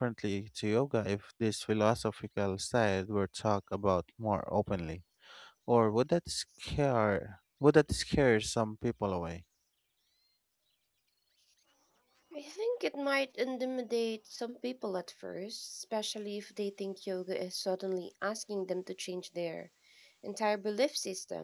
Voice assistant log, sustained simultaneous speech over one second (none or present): none